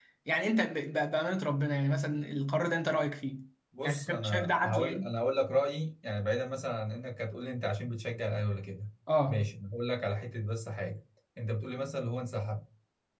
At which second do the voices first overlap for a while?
3.8 s

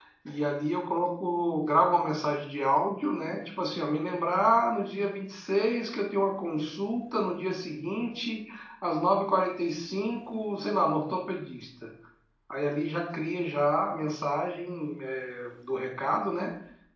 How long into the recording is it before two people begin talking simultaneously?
none

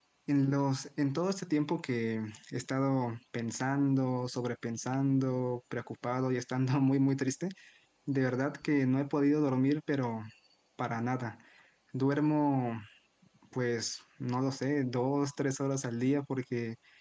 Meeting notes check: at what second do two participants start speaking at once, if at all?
none

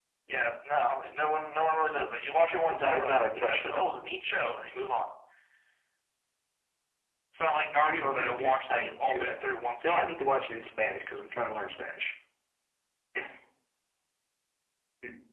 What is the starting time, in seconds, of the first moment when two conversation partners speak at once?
2.7 s

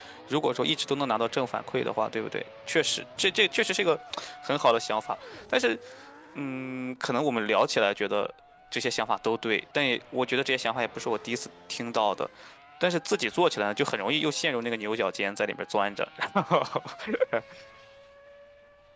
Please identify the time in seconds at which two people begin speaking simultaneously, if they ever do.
none

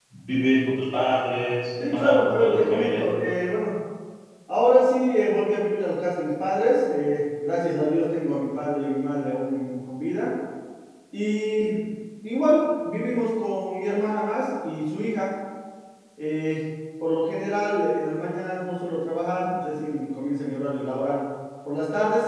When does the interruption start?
1.8 s

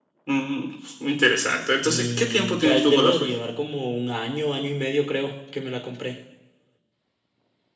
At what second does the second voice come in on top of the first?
1.8 s

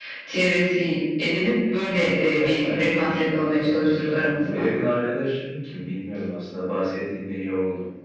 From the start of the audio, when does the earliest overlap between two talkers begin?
2.1 s

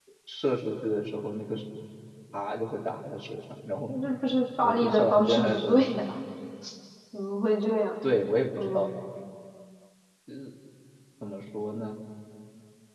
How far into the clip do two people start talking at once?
4.6 s

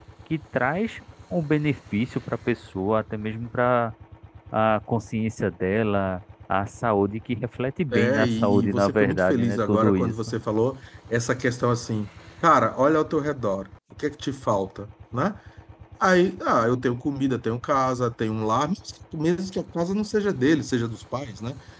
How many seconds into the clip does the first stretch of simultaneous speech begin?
7.9 s

